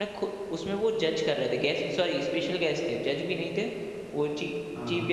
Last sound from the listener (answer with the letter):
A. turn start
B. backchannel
B